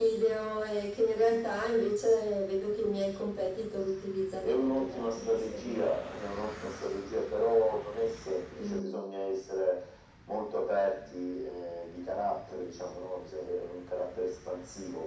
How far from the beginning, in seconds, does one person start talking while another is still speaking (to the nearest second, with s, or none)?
4 s